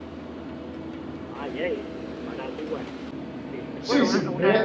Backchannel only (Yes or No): No